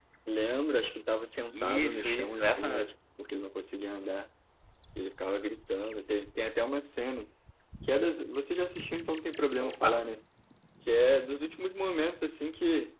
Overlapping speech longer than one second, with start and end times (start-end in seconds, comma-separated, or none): 1.5-2.9